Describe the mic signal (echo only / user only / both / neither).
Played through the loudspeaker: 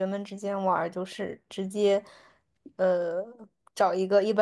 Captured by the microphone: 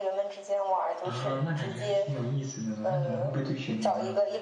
both